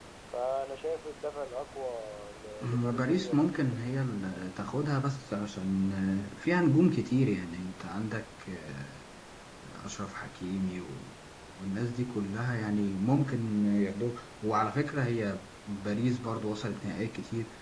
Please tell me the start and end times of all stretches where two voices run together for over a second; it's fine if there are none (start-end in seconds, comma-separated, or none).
2.6-4.0